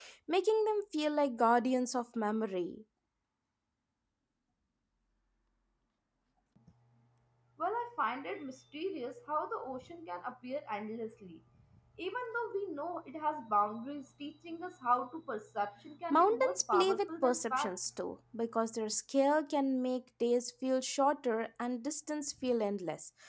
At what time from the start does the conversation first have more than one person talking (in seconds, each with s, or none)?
16.1 s